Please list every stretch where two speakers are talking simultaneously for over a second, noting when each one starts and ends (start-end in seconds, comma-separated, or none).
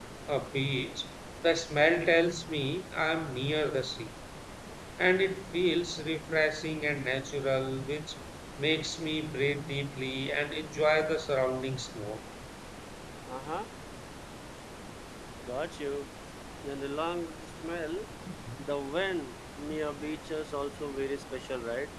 none